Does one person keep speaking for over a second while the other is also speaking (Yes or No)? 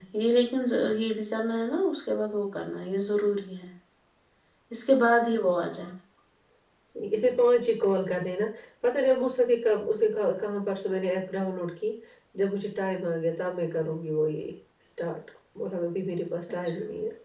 No